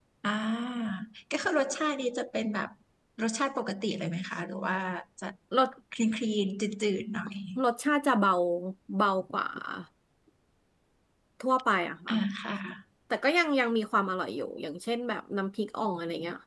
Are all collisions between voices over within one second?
Yes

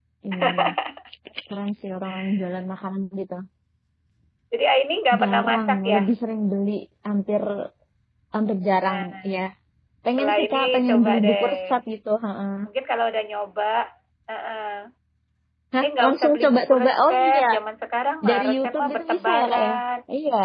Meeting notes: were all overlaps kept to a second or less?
No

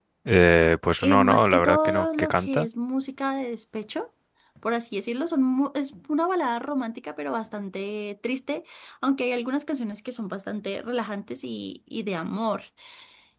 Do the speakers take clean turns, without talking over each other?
No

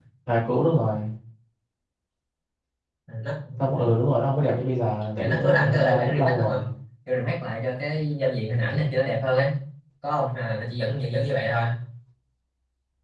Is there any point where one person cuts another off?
Yes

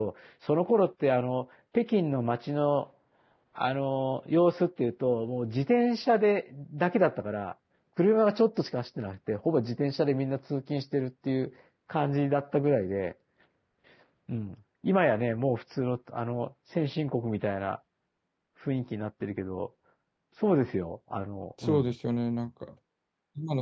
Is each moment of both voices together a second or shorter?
Yes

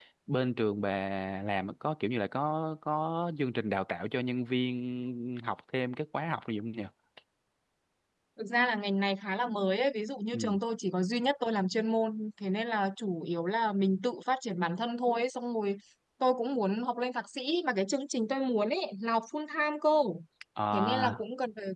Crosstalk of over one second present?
No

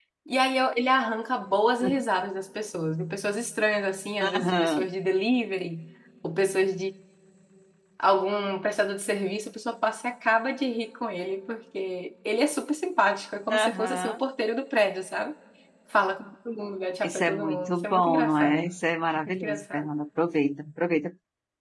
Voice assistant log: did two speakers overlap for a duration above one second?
Yes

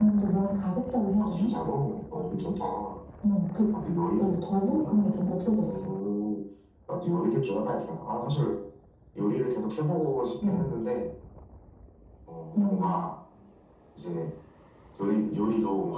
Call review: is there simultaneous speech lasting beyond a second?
No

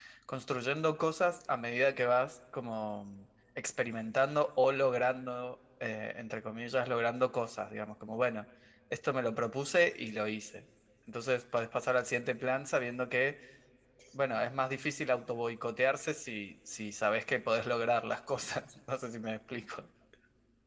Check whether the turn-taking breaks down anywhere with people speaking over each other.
No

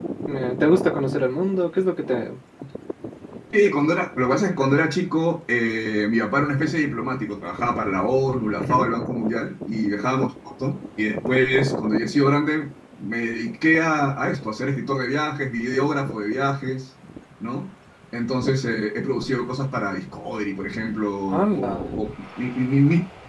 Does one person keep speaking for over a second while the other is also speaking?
No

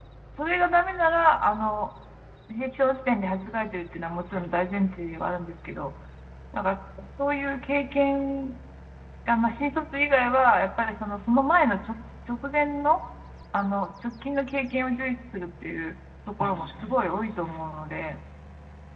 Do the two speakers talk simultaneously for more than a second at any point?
Yes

